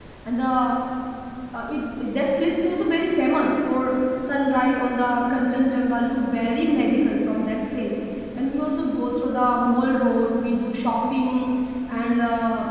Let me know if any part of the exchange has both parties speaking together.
No

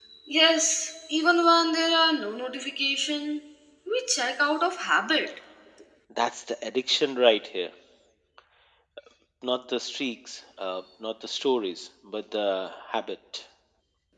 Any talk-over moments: No

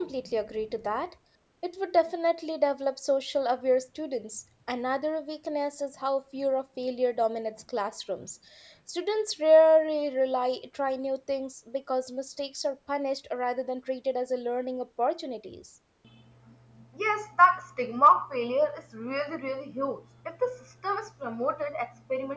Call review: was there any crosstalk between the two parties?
No

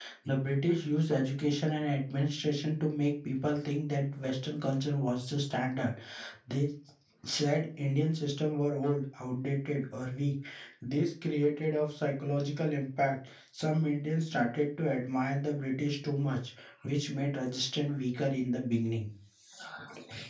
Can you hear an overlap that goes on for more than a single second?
No

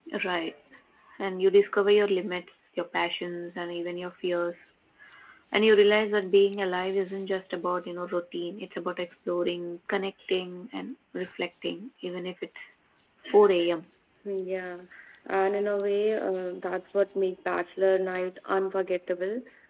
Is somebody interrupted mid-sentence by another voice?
No

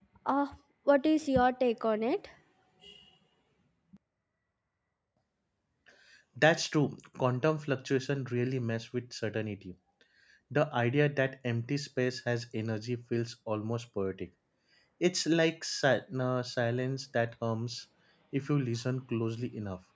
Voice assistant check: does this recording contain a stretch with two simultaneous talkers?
No

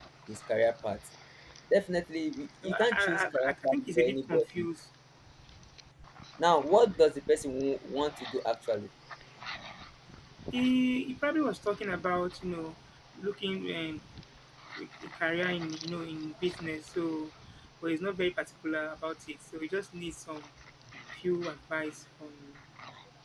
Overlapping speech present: Yes, from 2.6 s

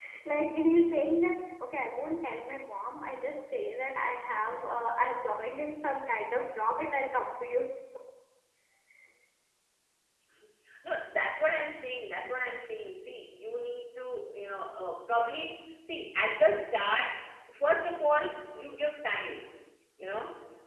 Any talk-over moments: No

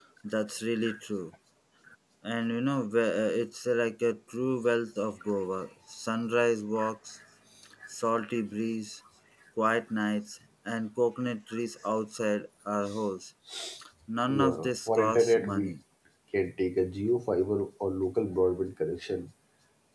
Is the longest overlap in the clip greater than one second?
Yes, from 14.3 s

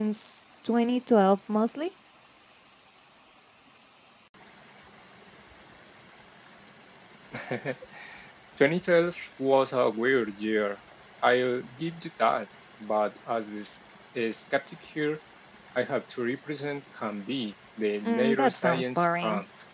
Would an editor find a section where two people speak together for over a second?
Yes, from 18.0 s

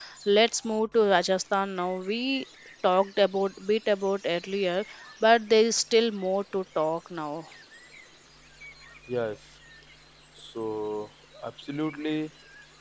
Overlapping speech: No

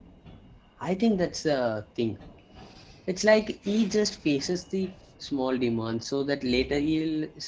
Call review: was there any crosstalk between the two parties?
No

